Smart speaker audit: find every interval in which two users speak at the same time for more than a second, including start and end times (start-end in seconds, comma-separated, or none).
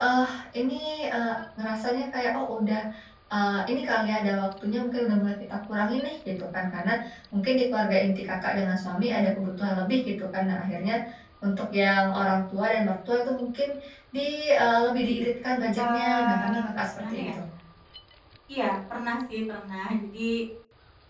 15.8-17.2